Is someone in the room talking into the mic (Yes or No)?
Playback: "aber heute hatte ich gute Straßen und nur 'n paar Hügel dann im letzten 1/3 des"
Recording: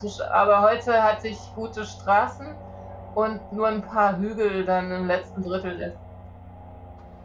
No